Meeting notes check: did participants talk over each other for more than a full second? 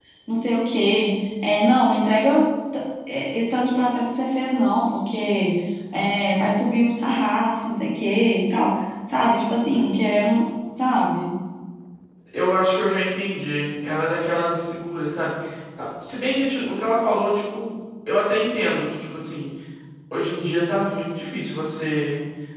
No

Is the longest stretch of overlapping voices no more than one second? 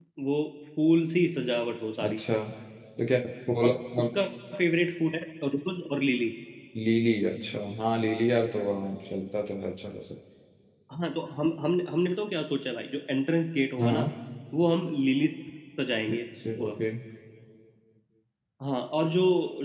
Yes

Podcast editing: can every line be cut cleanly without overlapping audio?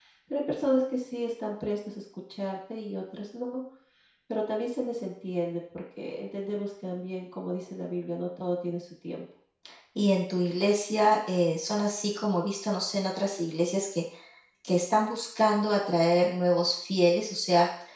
Yes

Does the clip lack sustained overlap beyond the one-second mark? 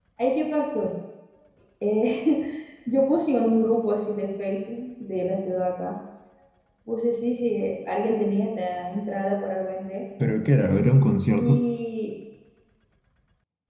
Yes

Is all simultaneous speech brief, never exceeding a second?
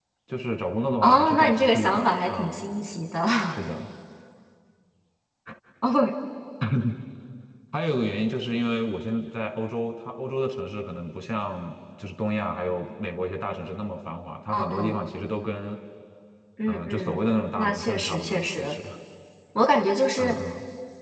No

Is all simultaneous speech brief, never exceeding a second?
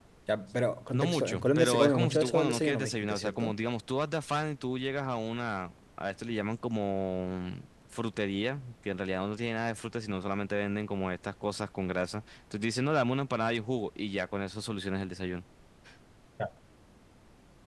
No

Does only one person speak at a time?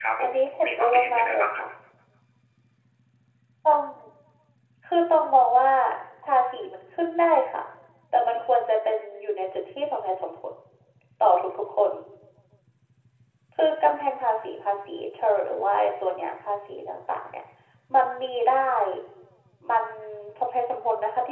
No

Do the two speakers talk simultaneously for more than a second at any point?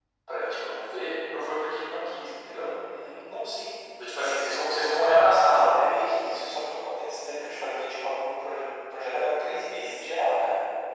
No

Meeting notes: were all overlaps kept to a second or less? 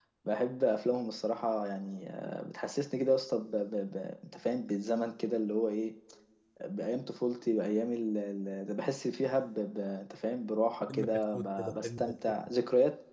No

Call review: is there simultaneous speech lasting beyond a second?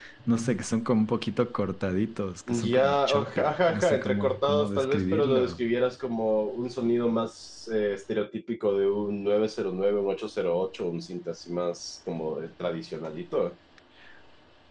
Yes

